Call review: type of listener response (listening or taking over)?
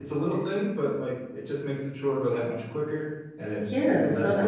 taking over